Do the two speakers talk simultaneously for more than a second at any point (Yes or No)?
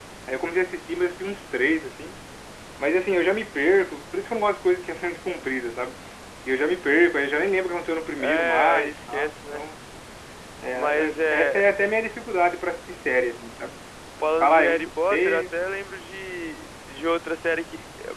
Yes